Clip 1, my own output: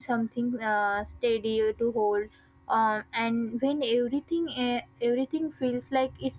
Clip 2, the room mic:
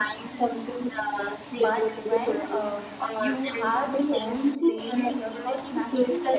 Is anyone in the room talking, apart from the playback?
Yes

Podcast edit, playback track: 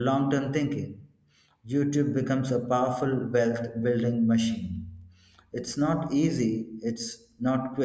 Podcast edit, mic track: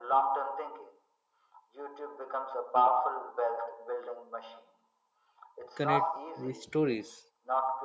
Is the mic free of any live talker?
No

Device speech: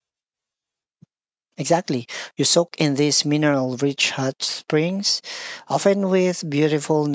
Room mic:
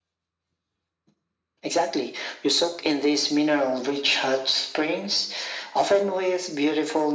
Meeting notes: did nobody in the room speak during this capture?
Yes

